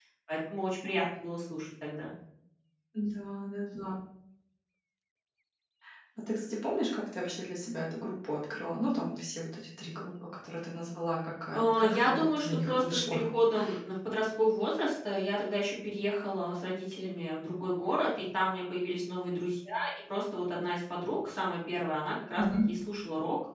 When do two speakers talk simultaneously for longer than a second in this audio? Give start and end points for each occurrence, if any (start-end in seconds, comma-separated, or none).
11.5-13.2